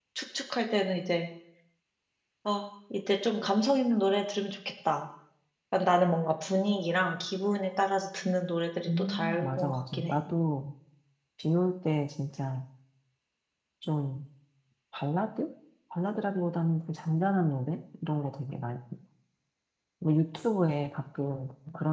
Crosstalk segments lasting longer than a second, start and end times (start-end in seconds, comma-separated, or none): 8.9-10.1